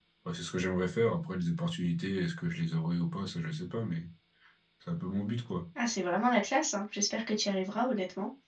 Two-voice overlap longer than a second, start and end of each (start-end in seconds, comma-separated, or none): none